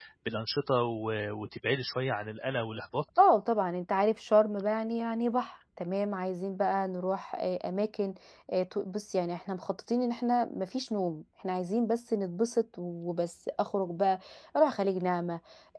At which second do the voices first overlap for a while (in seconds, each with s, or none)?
none